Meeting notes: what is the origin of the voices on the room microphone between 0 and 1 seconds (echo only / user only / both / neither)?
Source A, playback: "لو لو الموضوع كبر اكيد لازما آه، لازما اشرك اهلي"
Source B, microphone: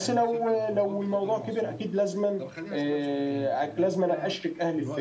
both